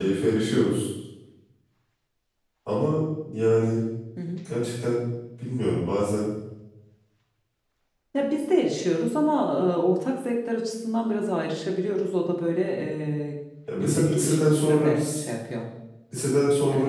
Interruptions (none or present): present